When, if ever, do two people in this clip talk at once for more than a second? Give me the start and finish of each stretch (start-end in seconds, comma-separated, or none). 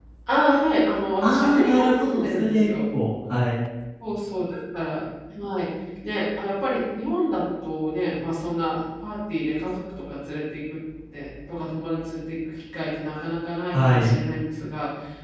1.2-2.7